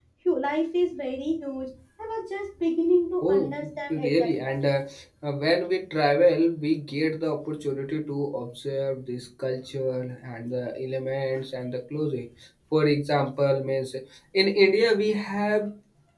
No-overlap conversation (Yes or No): No